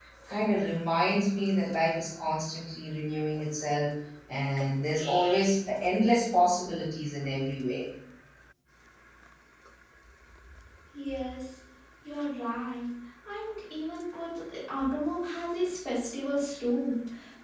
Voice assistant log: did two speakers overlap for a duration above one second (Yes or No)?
No